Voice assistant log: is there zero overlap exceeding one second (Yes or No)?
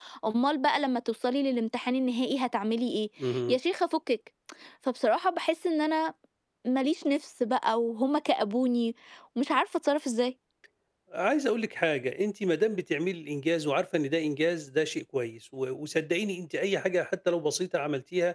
Yes